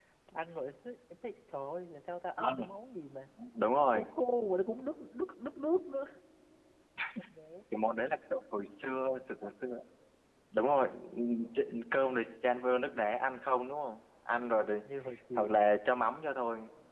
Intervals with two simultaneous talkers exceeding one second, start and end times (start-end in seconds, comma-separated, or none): none